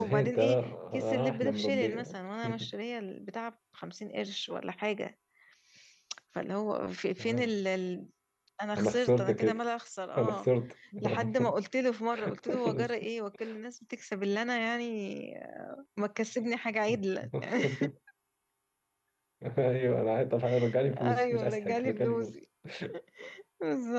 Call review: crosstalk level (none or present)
present